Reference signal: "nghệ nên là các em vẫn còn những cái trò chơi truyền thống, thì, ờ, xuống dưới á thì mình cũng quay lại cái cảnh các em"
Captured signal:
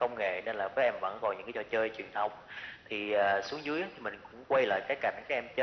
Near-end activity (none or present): none